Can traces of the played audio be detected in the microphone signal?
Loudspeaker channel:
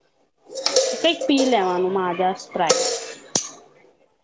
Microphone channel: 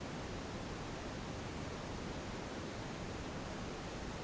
No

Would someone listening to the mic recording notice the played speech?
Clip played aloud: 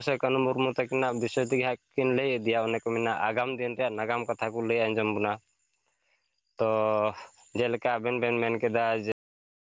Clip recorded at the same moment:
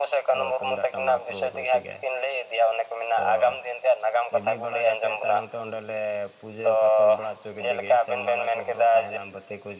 Yes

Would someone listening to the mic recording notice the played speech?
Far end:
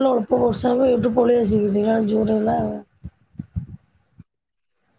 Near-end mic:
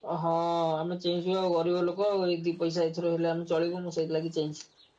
No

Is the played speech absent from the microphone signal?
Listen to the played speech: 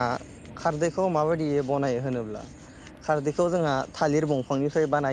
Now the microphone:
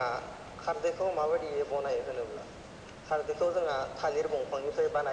No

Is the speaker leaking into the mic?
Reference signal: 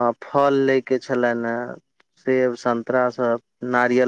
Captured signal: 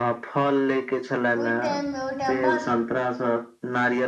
Yes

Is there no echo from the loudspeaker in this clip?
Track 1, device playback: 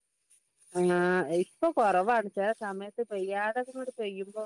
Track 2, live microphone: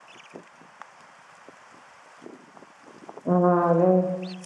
Yes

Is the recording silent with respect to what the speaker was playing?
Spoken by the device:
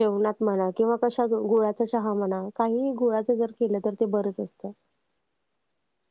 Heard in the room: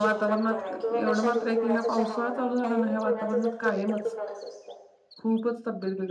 No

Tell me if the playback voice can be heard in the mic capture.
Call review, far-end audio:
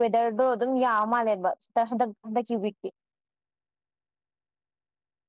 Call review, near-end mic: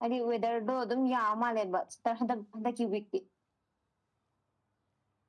Yes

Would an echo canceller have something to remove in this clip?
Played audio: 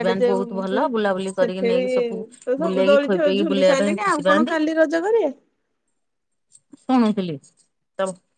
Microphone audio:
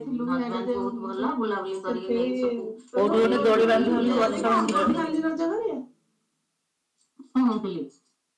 Yes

